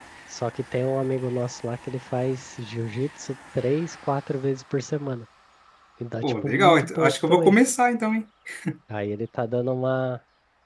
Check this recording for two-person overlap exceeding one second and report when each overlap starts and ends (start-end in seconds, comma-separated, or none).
6.2-7.6